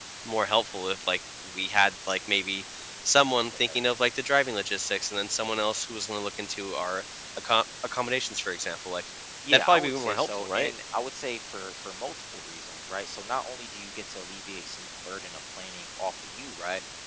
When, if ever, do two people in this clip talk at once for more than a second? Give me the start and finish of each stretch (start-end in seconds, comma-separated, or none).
9.5-10.7